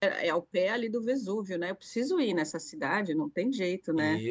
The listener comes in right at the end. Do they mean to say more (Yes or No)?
Yes